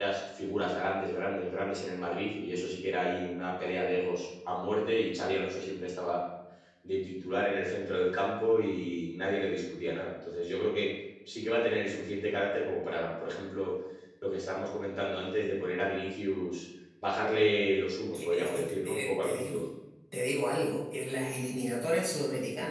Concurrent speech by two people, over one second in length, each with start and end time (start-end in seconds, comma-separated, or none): 18.1-19.6